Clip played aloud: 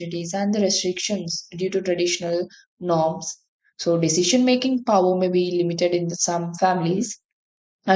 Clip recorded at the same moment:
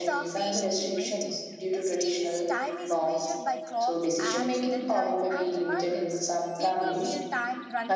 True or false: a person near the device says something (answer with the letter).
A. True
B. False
A